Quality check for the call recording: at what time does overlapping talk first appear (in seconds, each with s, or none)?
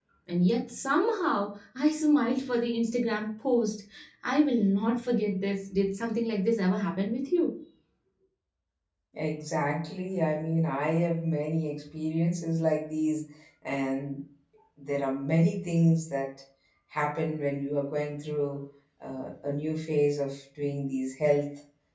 none